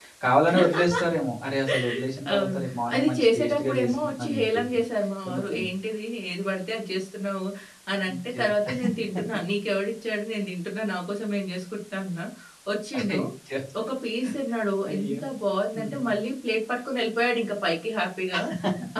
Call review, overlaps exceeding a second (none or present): present